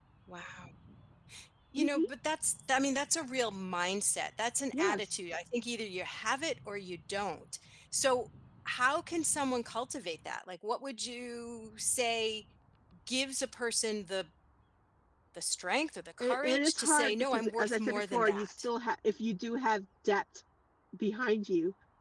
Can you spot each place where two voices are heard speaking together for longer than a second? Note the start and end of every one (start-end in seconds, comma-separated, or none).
16.2-18.7